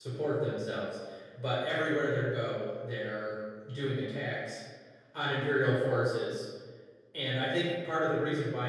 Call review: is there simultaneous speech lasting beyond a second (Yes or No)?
No